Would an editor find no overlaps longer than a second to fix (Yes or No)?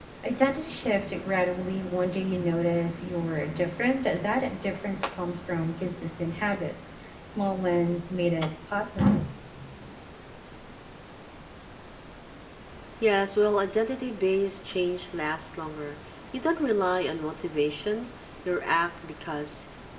Yes